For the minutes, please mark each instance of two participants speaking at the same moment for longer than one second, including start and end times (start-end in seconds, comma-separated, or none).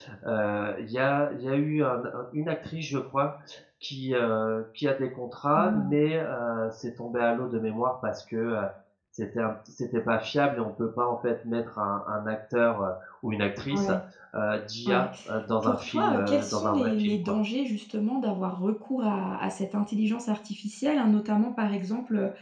15.6-17.4